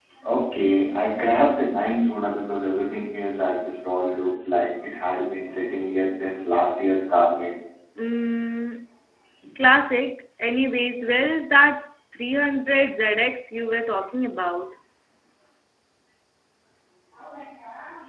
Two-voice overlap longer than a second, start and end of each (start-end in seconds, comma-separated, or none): none